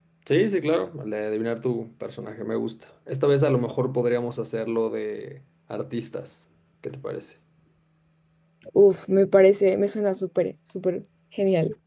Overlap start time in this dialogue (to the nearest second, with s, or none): none